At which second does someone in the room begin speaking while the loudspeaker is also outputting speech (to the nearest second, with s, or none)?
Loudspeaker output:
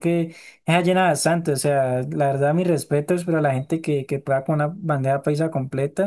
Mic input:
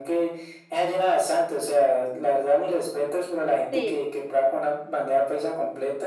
4 s